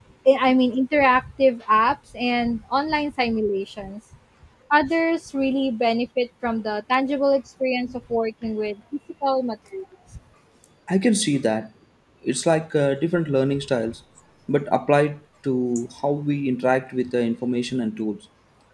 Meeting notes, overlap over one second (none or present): none